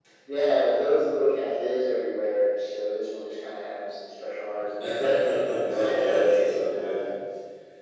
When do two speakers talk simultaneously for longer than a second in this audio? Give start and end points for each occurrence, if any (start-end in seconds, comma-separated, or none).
5.6-7.0